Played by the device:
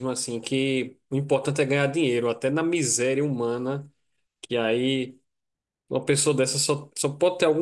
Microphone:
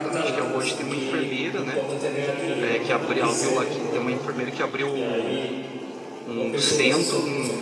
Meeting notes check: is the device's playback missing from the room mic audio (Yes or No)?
No